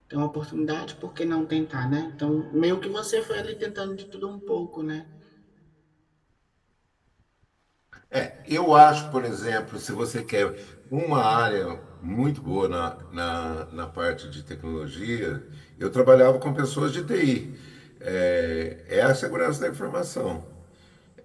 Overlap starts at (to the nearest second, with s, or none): none